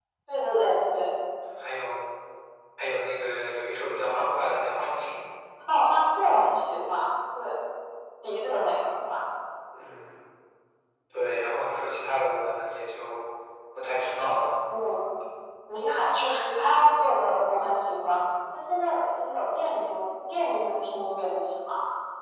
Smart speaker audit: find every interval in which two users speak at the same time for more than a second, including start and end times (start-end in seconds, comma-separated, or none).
none